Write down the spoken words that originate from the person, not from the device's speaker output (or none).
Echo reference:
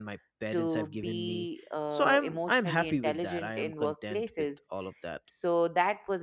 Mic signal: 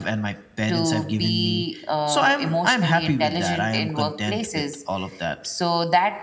none